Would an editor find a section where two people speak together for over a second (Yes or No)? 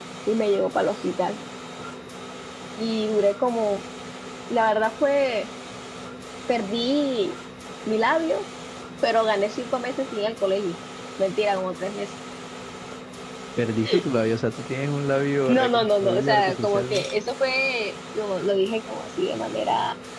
Yes